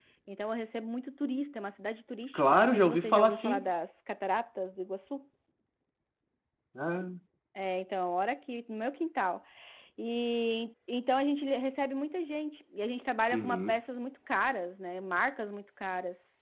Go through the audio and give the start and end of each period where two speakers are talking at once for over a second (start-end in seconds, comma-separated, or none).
2.3-3.6